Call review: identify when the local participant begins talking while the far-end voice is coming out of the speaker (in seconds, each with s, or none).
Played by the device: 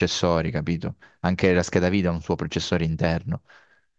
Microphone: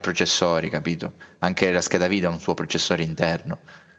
none